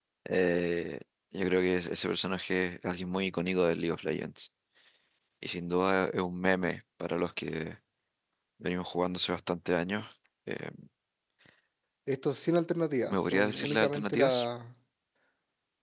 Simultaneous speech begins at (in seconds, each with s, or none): 13.1 s